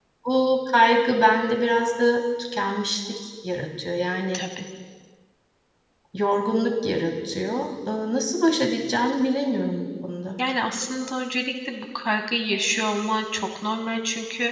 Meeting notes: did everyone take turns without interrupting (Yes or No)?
Yes